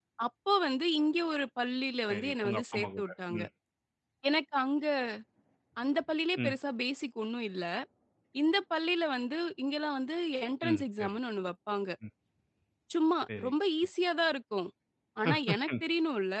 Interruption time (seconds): 2.1 s

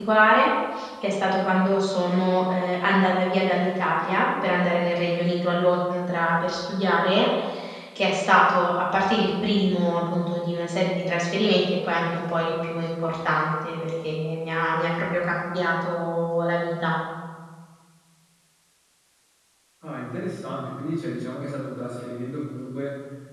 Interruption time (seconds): none

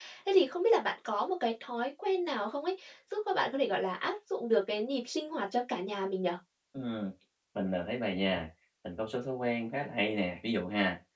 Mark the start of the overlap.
none

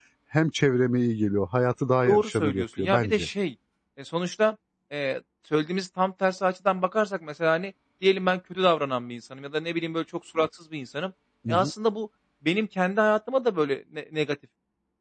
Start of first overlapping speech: 2.1 s

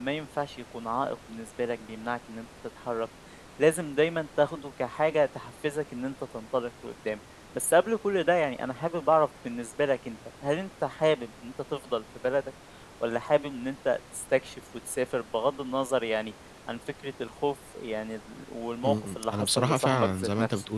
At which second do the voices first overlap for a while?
18.8 s

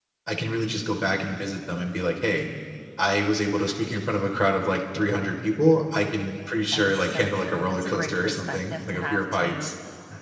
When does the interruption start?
6.7 s

